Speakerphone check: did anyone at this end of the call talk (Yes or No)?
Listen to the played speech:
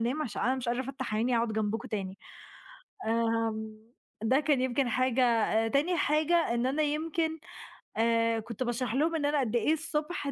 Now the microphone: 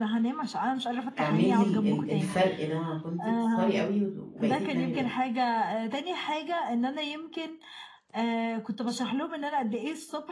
Yes